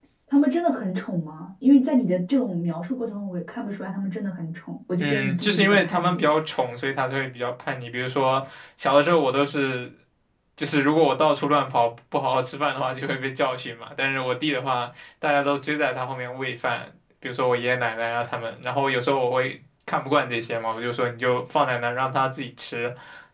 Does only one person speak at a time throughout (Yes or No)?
No